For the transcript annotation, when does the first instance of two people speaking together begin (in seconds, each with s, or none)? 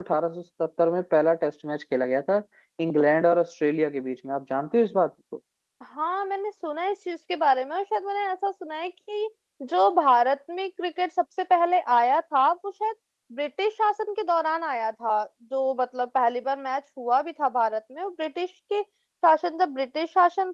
none